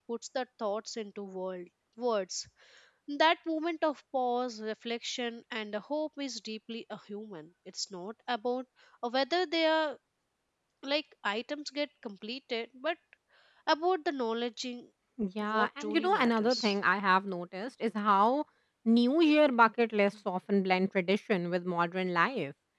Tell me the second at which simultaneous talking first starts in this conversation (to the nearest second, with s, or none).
15 s